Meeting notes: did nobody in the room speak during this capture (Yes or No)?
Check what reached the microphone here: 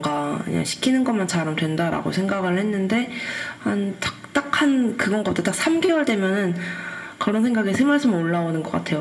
Yes